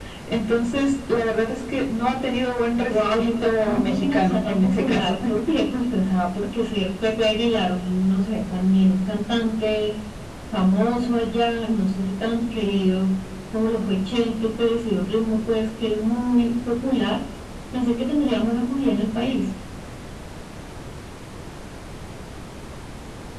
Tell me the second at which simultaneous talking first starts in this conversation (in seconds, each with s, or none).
2.9 s